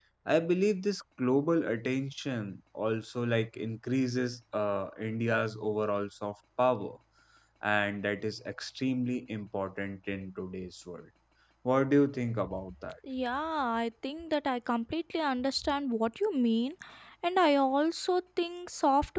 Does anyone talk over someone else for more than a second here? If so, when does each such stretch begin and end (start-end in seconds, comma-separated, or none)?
none